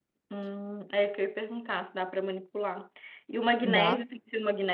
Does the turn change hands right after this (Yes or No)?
No